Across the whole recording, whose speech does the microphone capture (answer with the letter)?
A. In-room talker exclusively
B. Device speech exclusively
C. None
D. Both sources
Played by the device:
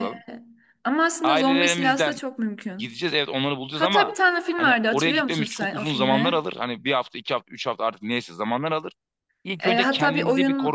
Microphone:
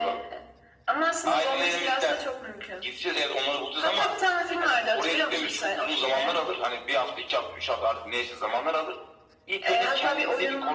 B